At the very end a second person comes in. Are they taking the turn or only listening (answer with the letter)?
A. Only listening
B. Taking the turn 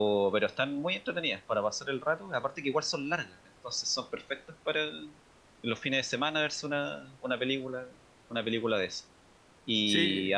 A